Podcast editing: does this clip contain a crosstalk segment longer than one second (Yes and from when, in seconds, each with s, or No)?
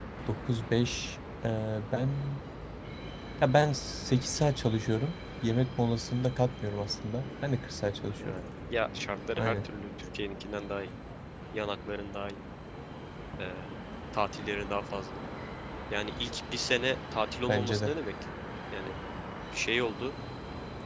No